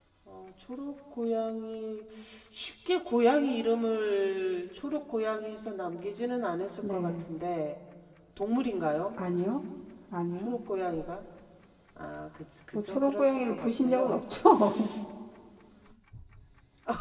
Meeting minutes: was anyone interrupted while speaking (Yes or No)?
Yes